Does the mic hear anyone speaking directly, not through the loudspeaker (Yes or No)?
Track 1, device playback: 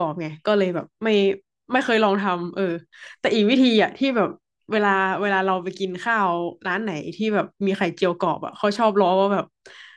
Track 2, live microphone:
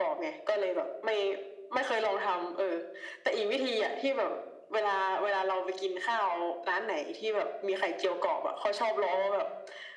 No